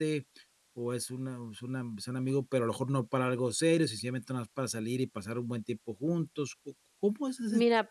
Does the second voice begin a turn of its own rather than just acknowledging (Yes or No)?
Yes